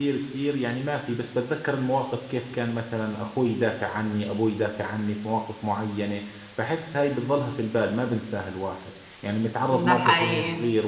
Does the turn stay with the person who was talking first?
Yes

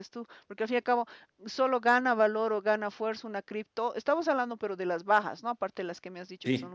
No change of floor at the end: Yes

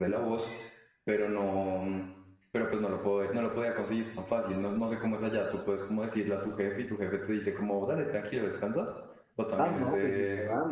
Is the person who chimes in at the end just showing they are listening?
No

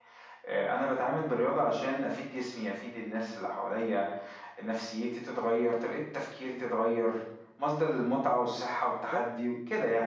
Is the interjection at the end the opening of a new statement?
No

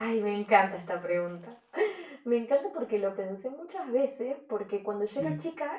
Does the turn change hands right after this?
No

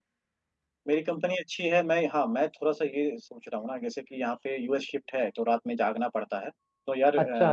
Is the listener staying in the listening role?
Yes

